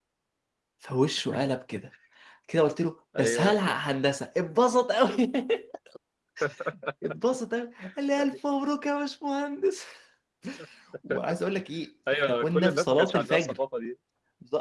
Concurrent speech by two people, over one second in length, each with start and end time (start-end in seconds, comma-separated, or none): 12.1-13.6